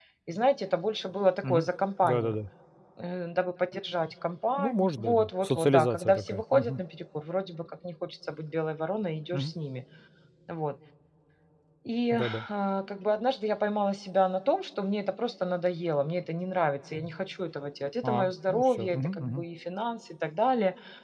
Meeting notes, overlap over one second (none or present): present